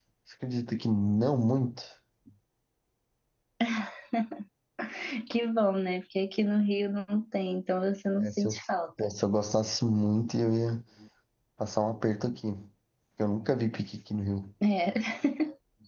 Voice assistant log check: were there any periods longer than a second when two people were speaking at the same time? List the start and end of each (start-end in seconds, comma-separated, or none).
none